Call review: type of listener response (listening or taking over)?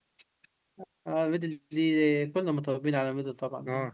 taking over